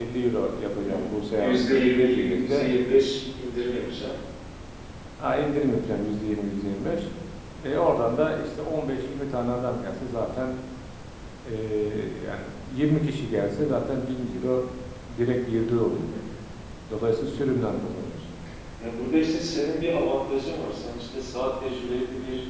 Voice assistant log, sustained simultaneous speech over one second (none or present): present